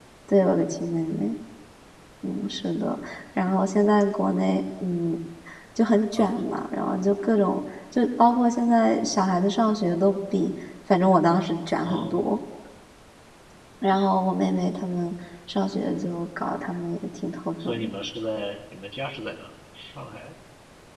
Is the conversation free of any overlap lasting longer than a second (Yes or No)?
Yes